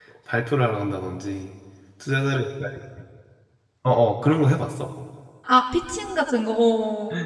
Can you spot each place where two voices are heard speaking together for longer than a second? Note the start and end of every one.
none

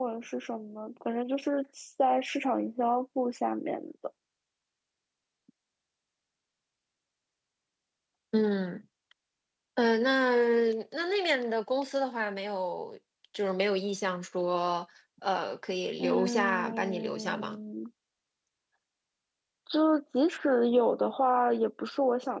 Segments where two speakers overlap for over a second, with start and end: 16.0-17.6

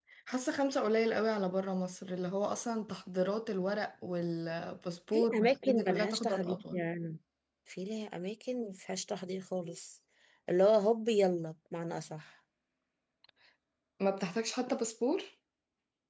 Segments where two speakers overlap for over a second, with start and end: 5.1-6.8

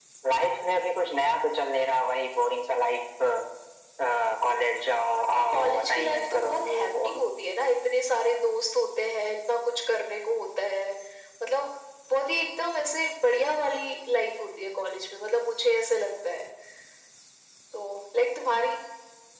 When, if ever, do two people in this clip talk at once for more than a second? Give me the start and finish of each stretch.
5.3-7.1

